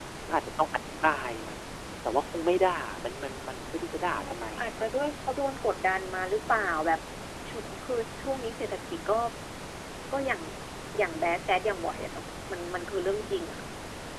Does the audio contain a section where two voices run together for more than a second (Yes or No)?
No